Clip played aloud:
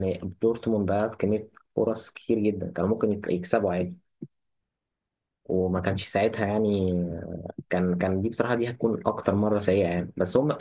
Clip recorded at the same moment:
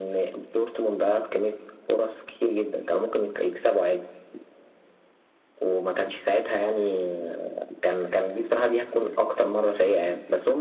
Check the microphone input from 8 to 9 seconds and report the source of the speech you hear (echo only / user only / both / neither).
echo only